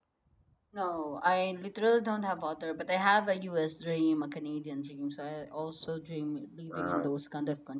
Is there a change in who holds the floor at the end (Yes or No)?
No